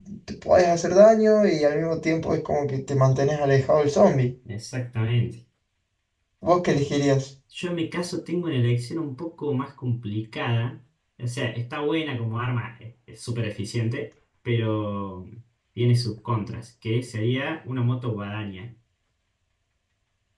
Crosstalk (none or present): none